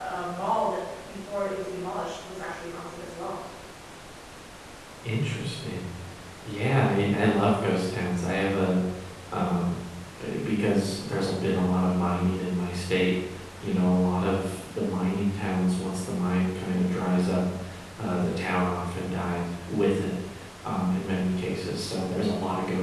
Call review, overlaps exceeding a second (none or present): none